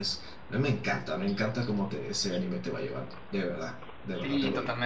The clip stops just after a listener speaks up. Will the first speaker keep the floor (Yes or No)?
No